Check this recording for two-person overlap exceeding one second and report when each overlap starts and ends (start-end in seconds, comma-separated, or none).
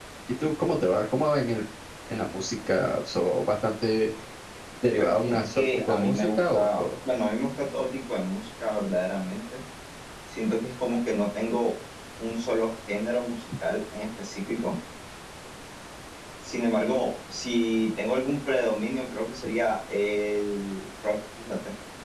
5.0-6.8